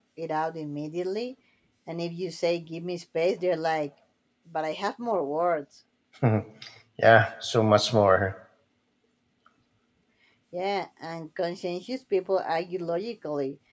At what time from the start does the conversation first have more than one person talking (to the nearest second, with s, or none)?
none